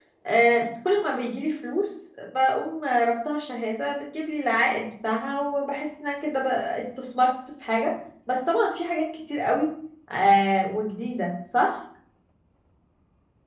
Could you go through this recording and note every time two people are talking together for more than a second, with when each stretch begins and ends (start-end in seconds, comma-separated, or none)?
none